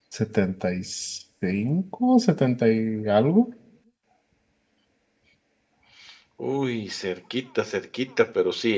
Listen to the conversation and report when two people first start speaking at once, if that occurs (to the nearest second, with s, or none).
none